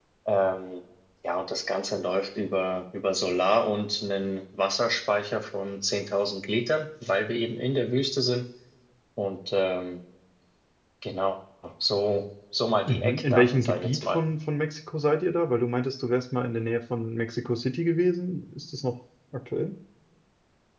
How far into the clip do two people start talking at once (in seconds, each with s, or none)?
12.9 s